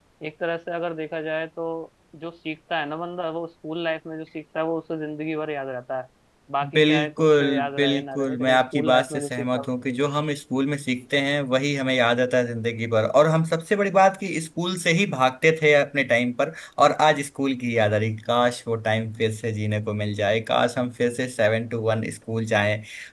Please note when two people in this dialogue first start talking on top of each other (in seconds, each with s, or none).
6.7 s